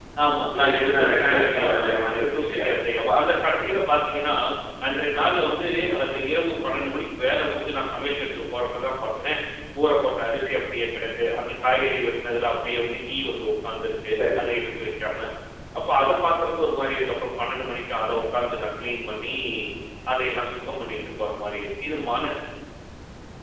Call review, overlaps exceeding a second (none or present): present